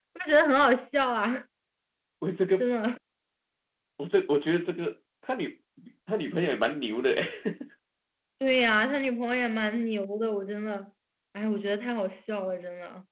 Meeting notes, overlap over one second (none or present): none